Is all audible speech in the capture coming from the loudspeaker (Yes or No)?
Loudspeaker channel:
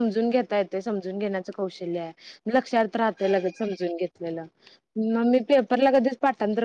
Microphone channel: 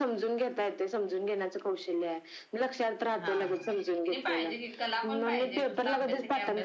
No